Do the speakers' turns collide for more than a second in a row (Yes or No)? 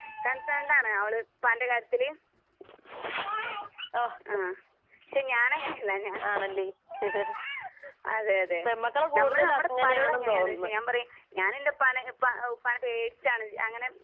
Yes